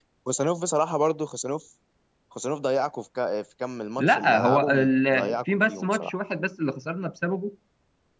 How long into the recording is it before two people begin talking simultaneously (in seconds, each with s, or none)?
4.0 s